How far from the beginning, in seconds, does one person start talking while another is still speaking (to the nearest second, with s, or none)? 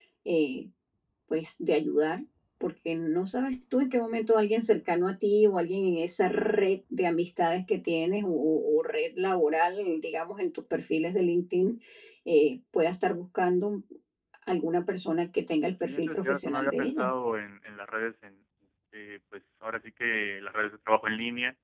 16 s